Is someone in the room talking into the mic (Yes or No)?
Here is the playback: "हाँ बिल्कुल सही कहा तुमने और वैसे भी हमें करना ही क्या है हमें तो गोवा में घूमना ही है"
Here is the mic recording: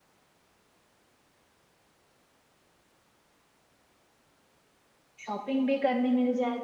Yes